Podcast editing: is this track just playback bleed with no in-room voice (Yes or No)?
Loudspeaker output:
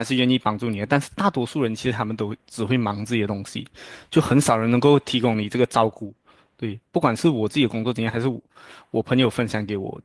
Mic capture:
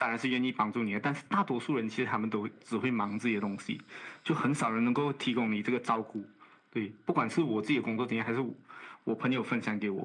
Yes